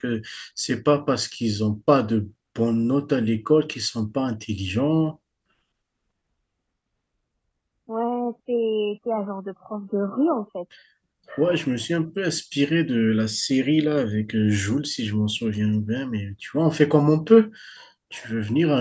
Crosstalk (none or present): none